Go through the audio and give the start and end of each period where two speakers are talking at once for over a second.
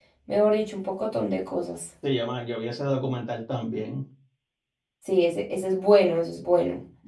none

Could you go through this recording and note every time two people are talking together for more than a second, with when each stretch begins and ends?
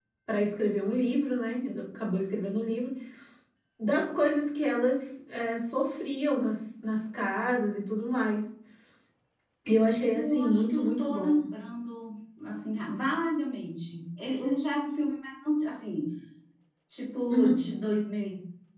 10.1-11.4

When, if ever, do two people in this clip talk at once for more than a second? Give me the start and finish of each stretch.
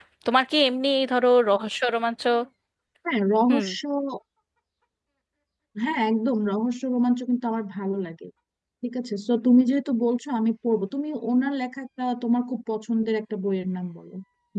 none

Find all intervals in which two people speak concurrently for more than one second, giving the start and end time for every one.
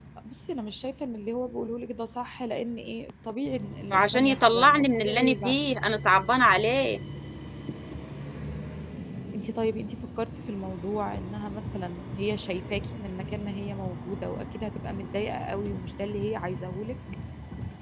3.9-5.6

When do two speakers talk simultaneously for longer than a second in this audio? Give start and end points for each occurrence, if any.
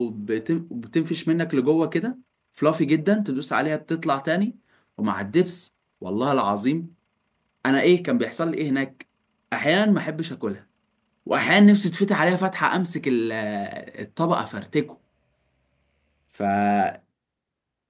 none

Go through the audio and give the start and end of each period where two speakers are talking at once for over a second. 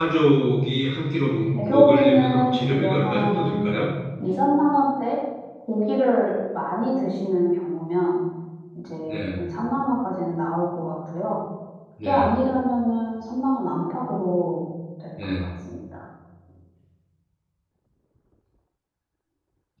1.6-3.7

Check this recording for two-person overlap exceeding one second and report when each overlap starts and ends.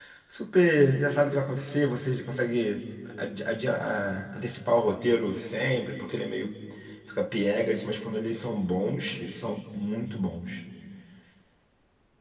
none

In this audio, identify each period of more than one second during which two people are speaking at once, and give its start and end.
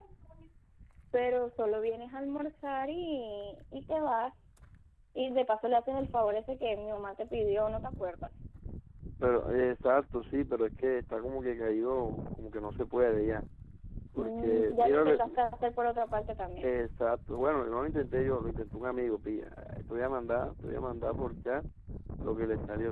14.2-15.4

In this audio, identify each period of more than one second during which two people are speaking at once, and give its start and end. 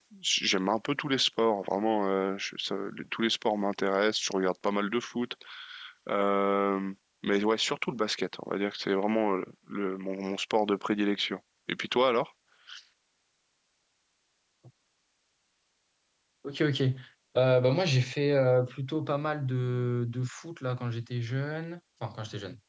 none

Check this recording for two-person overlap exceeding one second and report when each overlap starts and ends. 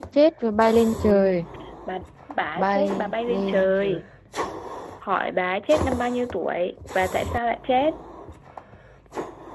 2.6-4.0

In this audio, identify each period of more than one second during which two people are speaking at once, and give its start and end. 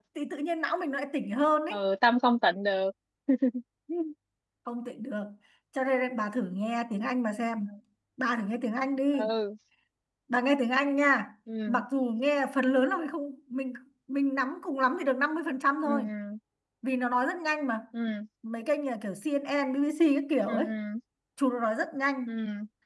none

